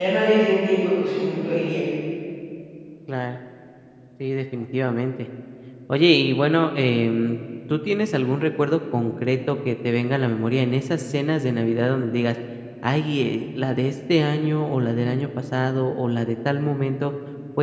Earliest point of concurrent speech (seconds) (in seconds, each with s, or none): none